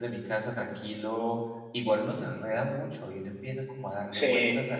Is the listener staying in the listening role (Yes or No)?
Yes